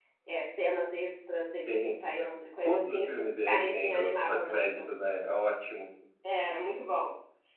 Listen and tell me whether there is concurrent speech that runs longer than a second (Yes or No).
Yes